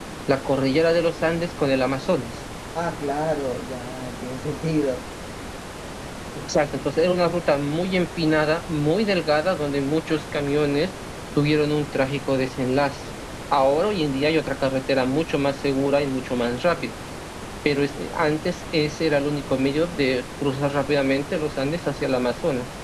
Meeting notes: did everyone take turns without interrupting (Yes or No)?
Yes